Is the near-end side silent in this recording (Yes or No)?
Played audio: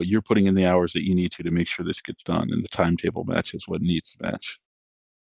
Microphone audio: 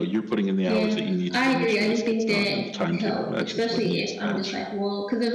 No